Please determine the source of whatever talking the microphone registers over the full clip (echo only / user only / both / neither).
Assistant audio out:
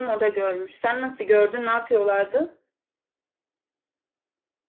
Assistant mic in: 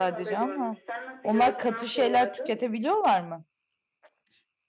both